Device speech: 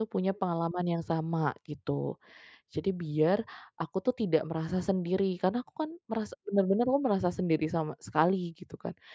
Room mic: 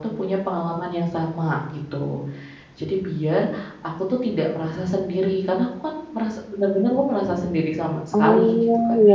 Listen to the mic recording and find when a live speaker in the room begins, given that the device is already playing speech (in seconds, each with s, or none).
8.1 s